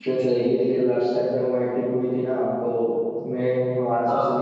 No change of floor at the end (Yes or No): Yes